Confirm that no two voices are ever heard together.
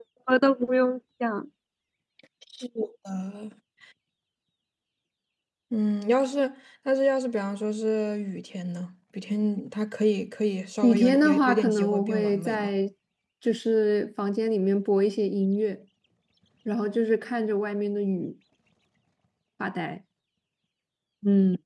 No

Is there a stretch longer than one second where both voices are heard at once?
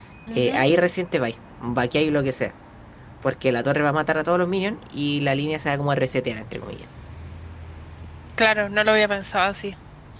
No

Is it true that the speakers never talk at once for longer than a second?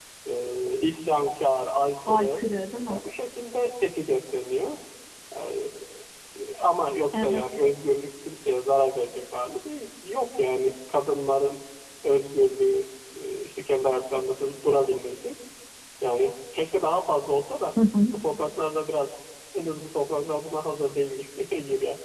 Yes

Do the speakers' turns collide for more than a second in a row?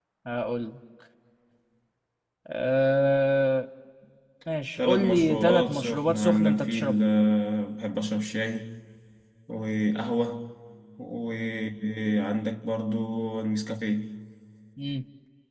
Yes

